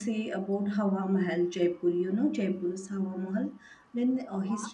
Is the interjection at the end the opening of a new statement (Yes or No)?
No